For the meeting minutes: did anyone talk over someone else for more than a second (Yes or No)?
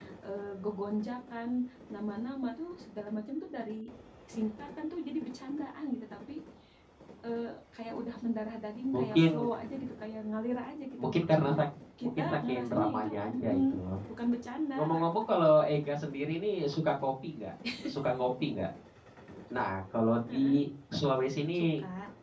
Yes